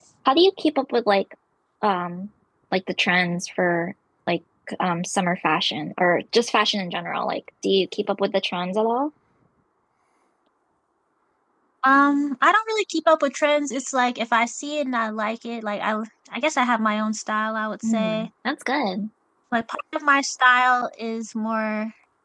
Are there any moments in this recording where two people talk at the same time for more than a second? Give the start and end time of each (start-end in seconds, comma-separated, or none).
none